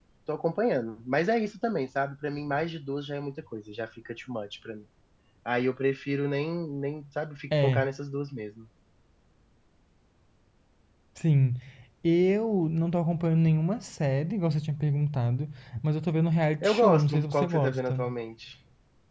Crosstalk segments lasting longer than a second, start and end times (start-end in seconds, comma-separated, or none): 16.6-18.0